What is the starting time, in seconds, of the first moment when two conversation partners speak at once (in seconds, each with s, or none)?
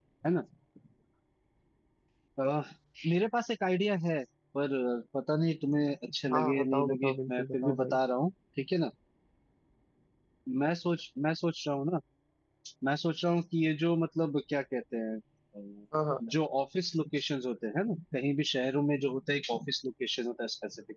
6.3 s